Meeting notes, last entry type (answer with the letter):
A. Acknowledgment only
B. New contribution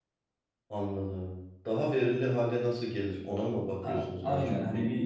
B